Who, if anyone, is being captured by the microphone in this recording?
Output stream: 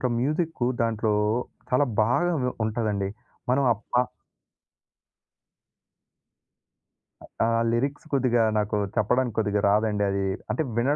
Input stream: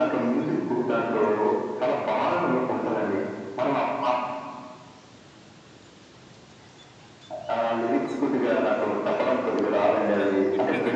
both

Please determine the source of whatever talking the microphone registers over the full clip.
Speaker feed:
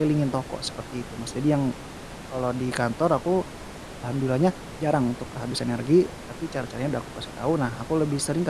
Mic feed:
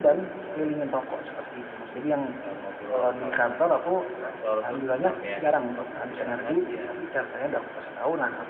both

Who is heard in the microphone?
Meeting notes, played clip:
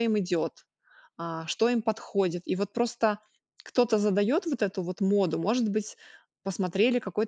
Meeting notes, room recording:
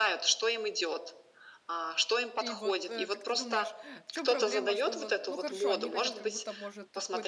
both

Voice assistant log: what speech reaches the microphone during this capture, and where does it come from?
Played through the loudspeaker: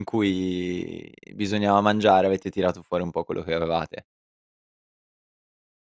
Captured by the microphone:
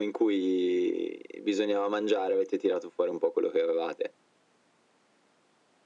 echo only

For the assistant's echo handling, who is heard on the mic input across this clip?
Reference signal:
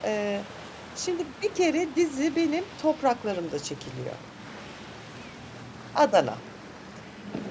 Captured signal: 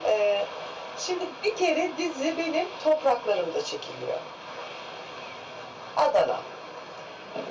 echo only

